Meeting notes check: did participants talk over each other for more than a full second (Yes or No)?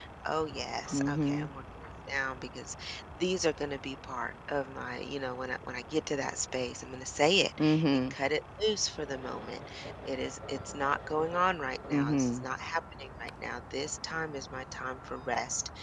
No